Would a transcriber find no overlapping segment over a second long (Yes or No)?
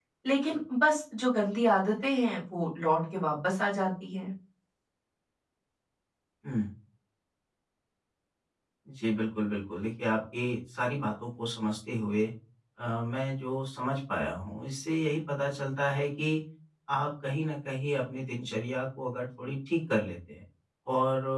Yes